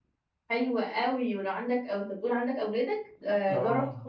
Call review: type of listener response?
listening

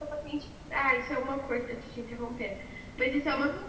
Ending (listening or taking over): listening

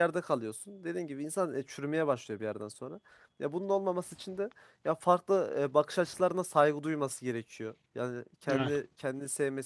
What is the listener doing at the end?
listening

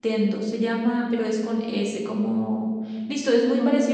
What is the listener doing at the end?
listening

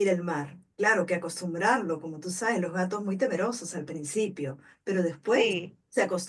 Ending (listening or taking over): listening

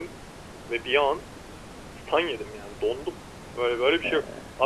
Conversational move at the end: listening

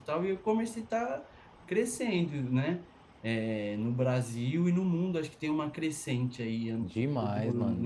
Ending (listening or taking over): taking over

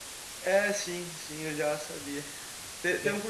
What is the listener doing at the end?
listening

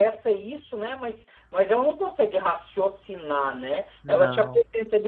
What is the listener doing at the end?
listening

